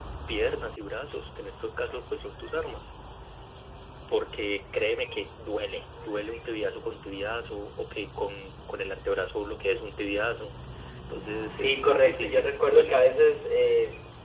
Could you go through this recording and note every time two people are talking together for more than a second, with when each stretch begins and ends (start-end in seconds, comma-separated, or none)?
11.5-13.0